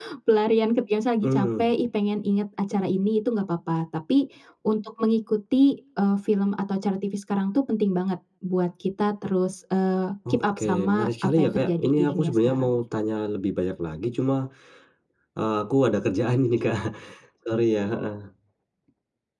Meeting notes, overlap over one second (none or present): present